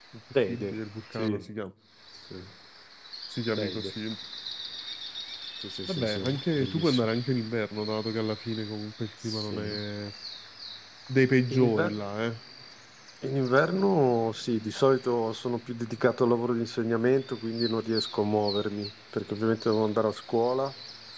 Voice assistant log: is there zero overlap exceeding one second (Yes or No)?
No